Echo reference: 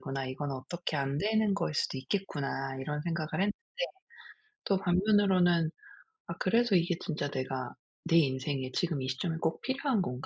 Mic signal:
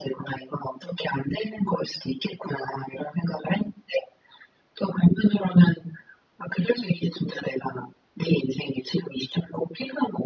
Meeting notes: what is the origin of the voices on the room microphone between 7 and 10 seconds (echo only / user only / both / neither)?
echo only